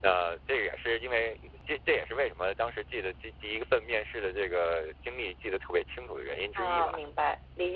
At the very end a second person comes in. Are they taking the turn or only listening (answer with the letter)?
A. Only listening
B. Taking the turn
B